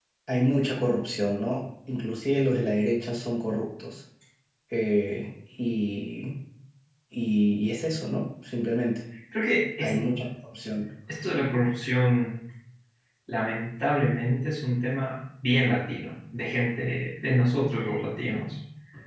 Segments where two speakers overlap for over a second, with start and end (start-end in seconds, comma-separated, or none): none